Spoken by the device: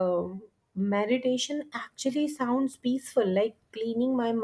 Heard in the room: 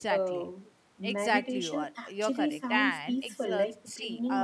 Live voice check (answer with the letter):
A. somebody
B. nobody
A